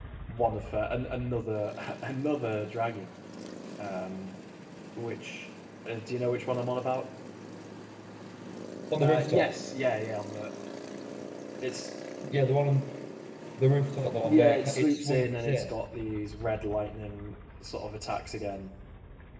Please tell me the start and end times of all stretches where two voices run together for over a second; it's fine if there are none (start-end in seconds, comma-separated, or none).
14.2-15.7